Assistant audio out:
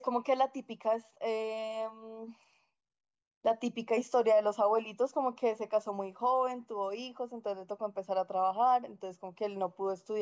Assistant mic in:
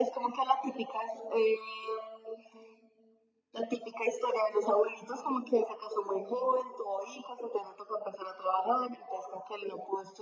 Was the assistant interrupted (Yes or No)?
No